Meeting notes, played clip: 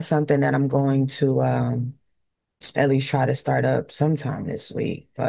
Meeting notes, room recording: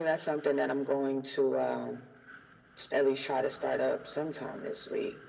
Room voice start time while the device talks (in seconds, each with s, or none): none